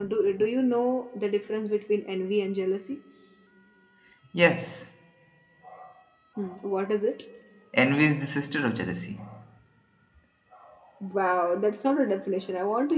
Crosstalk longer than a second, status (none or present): none